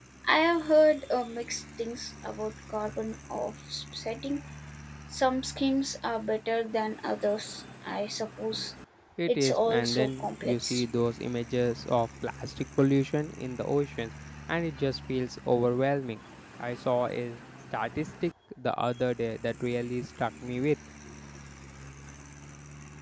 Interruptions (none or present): present